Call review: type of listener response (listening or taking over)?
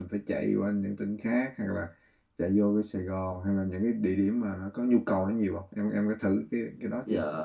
taking over